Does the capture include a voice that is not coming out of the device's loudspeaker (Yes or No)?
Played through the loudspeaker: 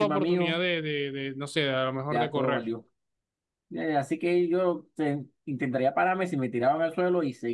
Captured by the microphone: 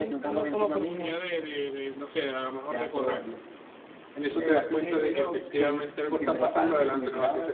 Yes